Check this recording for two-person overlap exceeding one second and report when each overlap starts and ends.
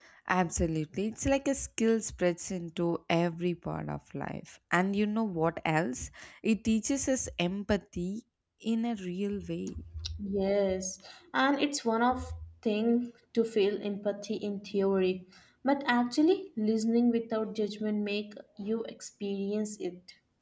none

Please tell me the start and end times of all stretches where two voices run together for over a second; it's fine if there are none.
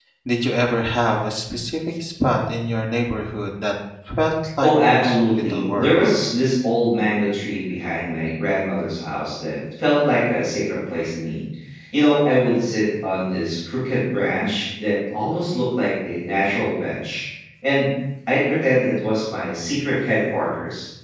4.6-6.0

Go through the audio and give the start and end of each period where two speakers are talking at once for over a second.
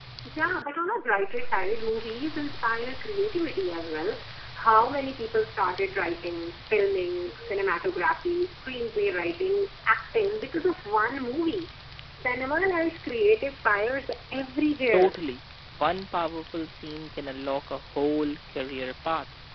none

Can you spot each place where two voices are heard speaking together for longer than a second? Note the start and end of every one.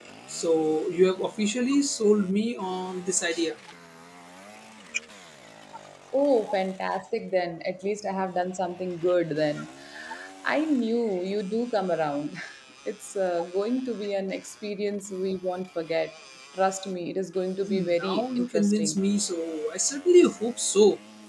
17.7-19.0

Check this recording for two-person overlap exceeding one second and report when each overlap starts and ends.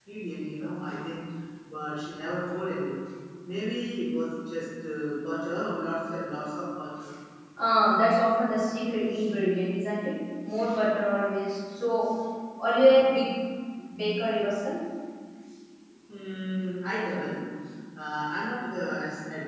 none

